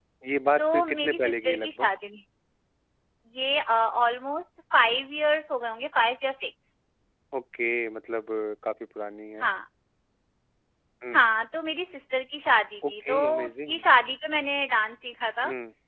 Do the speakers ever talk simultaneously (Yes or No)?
Yes